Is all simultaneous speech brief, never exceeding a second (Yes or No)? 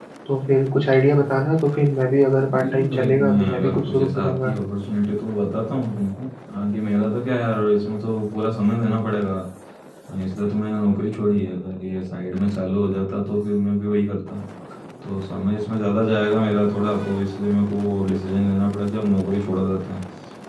No